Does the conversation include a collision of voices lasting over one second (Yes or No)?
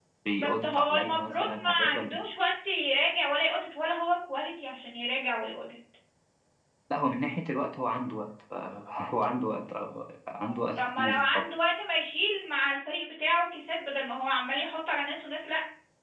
Yes